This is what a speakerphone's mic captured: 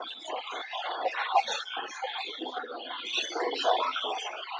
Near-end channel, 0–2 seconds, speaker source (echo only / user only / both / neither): echo only